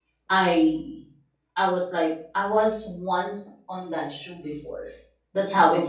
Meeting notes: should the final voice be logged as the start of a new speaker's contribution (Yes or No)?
No